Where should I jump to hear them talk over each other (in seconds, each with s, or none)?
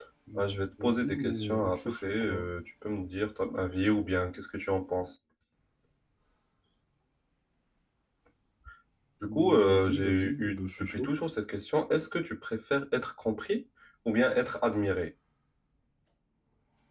0.8 s